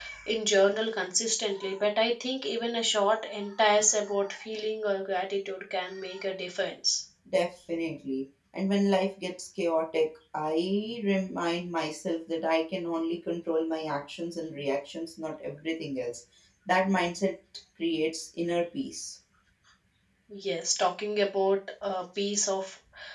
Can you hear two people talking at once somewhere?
No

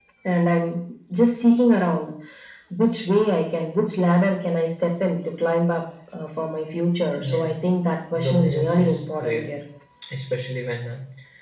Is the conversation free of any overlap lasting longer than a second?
No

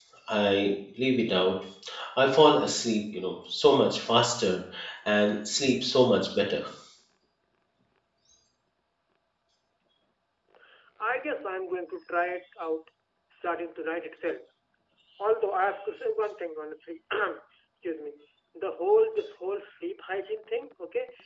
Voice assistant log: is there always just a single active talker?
Yes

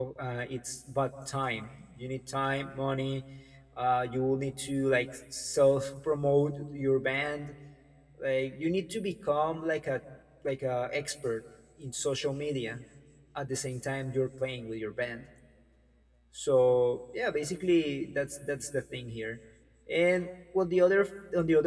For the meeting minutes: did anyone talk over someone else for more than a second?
No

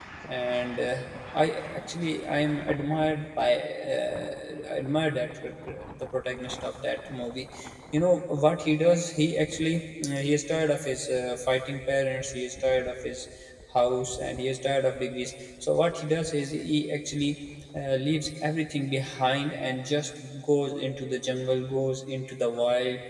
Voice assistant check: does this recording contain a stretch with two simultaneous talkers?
No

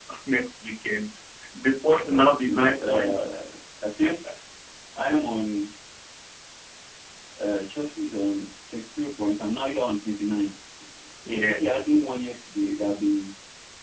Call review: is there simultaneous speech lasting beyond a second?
Yes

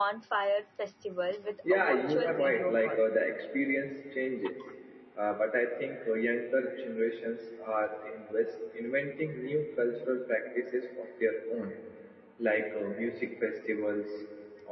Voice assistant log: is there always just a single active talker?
No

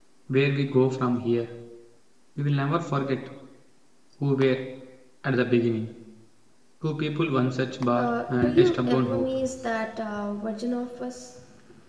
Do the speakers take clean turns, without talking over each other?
No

